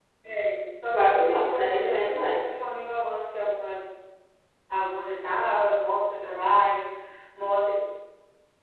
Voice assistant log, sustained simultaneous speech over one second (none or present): present